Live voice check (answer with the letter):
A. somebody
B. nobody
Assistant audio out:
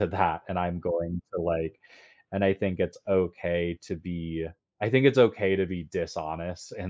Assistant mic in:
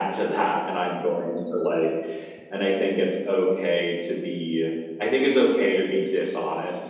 B